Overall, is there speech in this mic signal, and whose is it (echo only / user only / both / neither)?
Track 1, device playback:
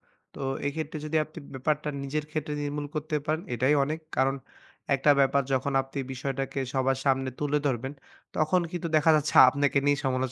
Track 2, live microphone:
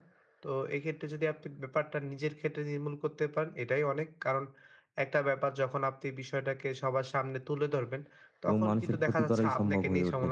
both